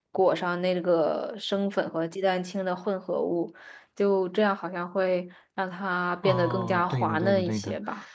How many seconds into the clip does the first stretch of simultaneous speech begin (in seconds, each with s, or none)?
6.2 s